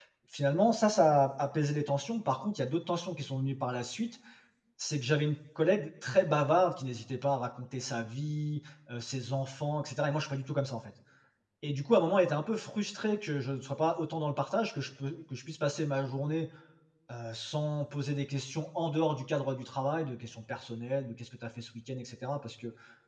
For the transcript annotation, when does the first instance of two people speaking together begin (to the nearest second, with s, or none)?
none